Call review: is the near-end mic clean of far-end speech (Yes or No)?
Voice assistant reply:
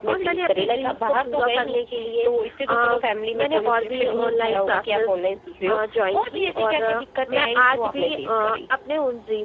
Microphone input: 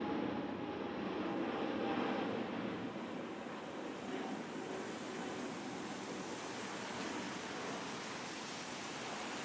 Yes